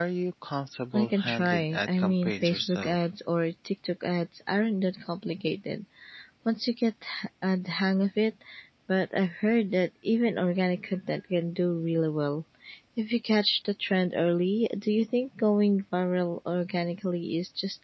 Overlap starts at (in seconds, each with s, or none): 0.9 s